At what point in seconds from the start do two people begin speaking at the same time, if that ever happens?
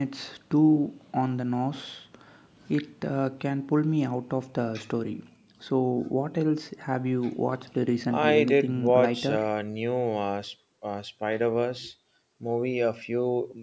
8.1 s

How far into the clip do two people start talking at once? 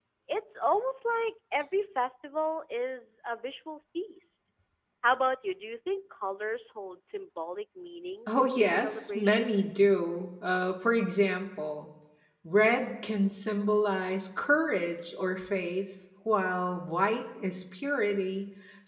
8.3 s

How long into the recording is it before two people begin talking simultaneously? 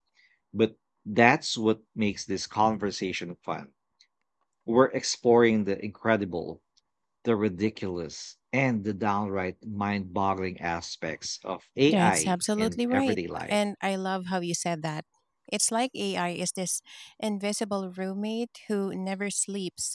11.9 s

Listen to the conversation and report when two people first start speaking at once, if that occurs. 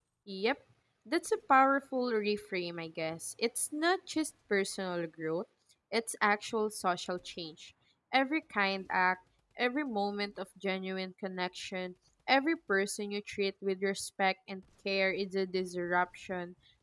none

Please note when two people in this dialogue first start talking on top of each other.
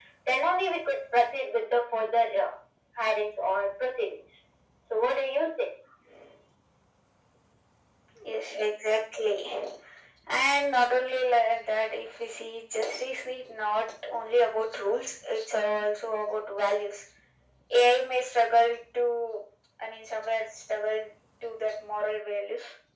none

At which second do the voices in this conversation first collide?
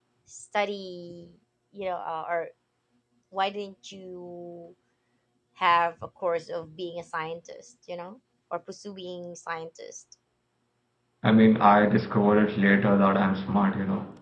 none

